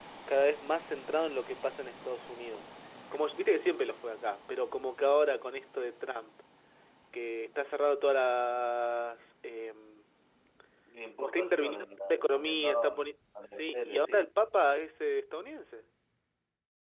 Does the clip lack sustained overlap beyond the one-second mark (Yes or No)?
No